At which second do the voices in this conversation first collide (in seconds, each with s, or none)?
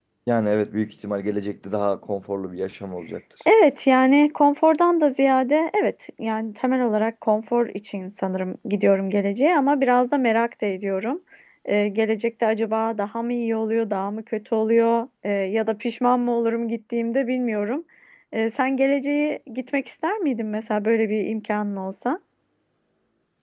none